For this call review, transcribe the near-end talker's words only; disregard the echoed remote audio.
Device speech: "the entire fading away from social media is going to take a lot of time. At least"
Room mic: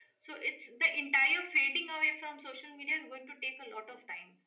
none

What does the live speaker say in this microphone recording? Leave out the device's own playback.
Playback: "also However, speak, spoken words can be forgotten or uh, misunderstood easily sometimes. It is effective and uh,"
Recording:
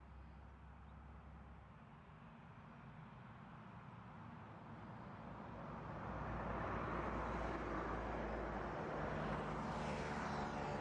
none

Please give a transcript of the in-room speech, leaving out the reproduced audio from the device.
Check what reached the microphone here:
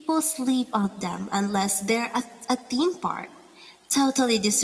none

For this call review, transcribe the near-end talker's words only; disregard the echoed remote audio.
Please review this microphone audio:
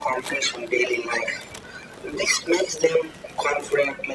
none

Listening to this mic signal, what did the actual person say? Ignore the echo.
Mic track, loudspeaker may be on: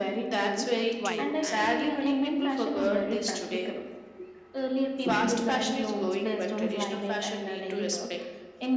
vibe. And

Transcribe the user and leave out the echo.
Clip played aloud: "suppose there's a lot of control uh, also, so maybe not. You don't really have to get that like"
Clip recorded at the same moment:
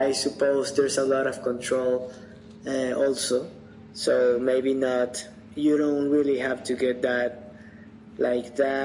none

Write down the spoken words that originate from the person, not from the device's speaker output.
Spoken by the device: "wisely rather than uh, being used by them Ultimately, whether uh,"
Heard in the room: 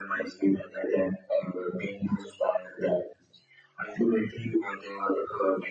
none

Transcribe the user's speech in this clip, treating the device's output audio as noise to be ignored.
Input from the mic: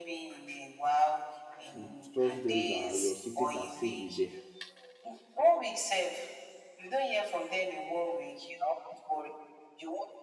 you trust them that your secret are safe with them

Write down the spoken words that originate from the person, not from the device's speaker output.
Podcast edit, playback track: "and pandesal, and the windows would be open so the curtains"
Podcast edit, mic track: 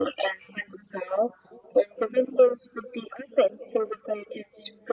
none

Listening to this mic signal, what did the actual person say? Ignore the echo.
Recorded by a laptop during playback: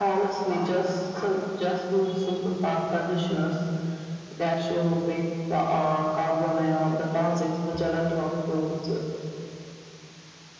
none

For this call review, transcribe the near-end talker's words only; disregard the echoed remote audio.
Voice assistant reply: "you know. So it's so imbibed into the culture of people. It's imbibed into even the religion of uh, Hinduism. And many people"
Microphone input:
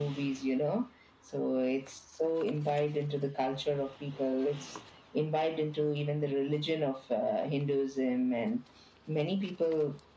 none

